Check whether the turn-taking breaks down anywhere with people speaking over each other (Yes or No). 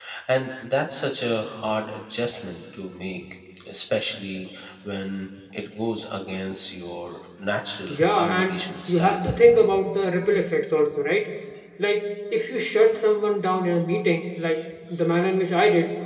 Yes